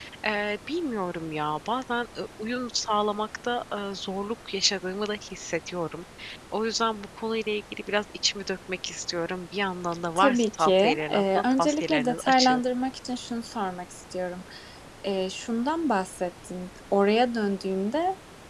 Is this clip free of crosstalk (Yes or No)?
No